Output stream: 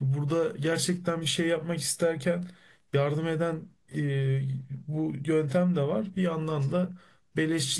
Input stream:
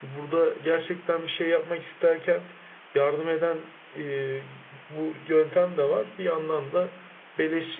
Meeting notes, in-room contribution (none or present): none